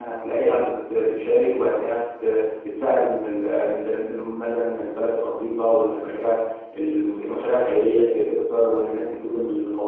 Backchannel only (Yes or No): Yes